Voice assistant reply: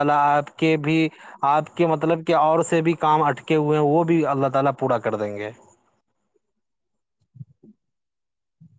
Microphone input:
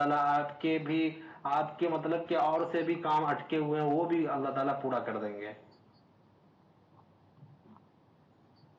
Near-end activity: none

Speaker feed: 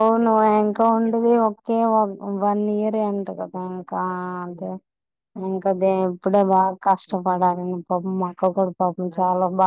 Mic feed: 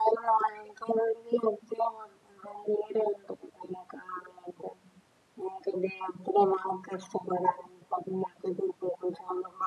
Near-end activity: none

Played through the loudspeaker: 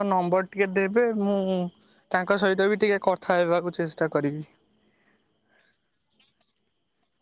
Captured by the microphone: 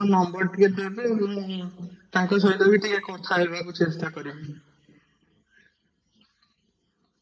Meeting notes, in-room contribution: none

